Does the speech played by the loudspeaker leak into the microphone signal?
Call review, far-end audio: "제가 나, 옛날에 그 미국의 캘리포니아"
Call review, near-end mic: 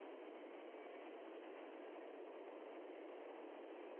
No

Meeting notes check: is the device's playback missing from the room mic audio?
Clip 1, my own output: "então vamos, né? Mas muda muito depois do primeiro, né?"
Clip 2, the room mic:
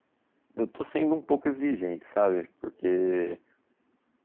Yes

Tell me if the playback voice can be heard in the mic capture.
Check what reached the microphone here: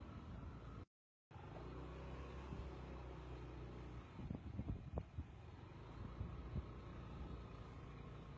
No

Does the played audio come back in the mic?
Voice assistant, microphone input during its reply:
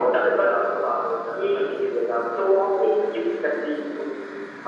Yes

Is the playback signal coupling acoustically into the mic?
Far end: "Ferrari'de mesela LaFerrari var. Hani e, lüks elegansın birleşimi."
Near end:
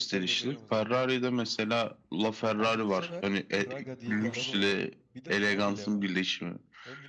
Yes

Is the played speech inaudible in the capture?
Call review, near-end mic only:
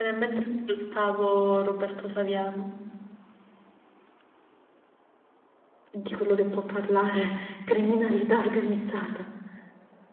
No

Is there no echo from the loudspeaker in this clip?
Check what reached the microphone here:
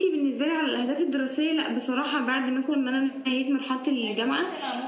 No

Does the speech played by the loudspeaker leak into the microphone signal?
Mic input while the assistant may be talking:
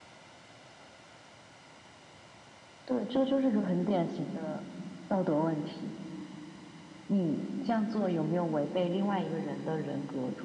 Yes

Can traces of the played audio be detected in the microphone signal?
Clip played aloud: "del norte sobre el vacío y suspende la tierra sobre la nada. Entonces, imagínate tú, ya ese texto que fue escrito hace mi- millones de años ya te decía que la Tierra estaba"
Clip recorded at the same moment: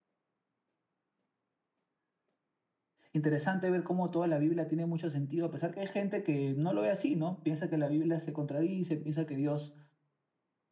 No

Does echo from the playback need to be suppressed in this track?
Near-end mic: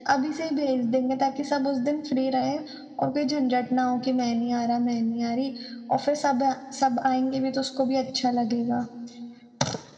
Yes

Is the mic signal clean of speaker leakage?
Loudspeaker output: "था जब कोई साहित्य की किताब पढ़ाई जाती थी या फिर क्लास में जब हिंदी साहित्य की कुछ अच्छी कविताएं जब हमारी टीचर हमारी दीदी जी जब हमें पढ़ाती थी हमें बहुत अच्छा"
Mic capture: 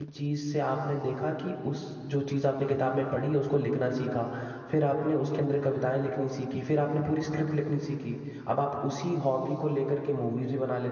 Yes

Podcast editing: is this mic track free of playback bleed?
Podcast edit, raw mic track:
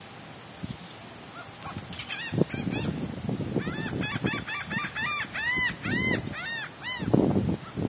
Yes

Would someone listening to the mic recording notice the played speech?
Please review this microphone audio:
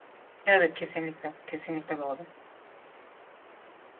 No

